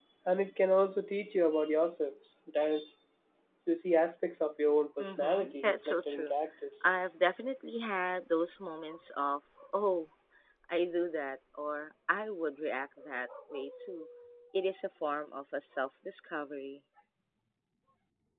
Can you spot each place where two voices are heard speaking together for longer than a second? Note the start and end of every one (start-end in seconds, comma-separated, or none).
5.0-6.3